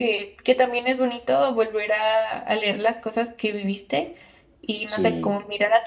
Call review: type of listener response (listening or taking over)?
listening